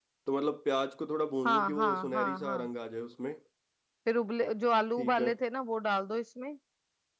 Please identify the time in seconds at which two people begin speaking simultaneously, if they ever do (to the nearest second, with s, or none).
1 s